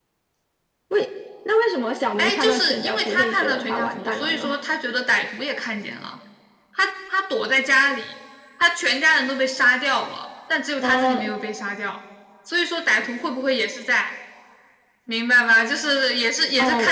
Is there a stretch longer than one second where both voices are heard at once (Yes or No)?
Yes